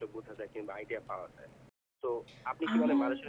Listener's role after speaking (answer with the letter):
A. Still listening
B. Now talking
A